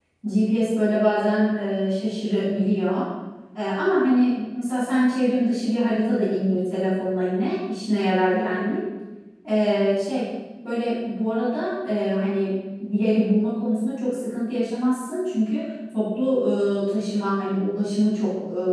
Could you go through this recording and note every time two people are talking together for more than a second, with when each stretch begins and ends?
none

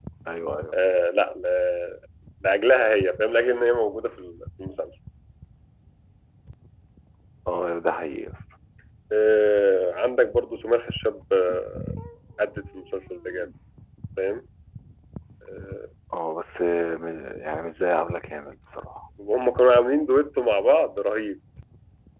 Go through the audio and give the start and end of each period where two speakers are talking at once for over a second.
none

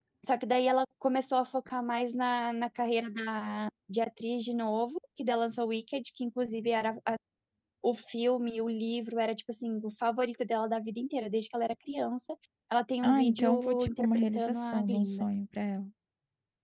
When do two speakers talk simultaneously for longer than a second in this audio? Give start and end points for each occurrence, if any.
13.0-15.2

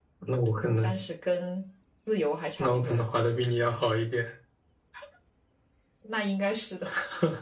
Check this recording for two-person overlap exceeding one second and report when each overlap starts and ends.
none

